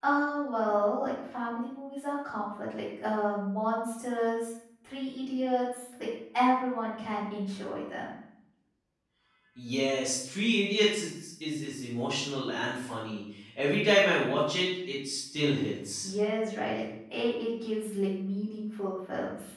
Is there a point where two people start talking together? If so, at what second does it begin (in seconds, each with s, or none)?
none